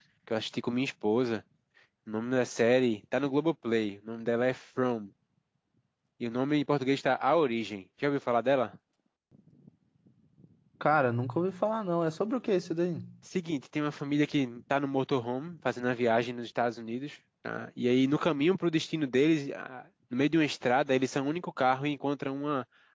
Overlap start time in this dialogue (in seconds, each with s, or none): none